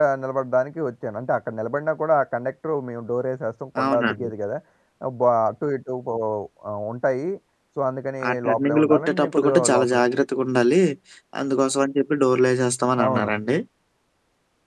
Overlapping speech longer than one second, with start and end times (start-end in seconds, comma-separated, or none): 8.3-10.0